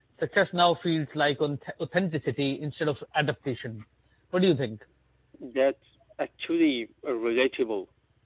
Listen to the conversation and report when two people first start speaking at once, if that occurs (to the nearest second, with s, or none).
none